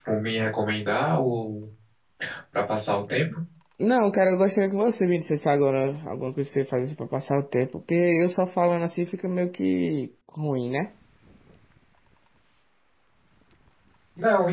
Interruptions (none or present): none